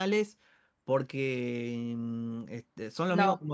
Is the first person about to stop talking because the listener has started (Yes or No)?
No